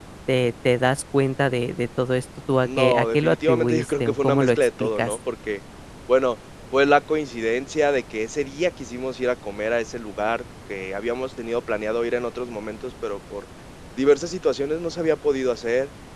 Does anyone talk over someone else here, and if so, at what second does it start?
2.6 s

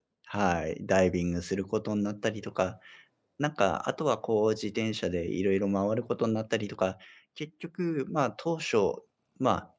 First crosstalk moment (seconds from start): none

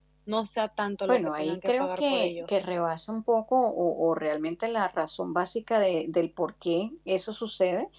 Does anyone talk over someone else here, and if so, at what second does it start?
1.1 s

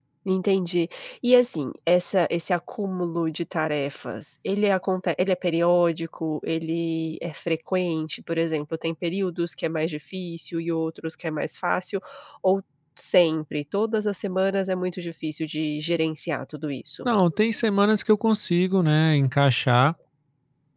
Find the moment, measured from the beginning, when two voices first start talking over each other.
none

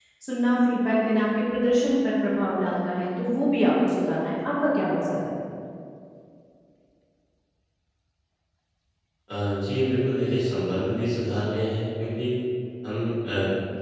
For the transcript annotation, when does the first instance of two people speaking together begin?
none

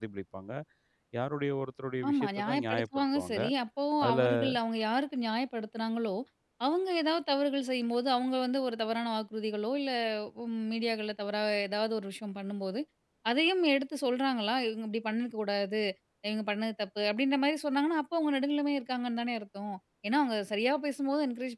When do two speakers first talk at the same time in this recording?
2.1 s

